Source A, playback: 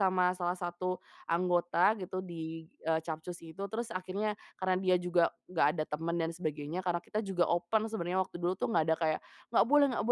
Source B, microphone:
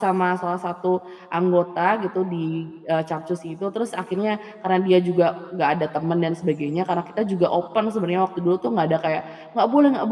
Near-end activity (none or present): none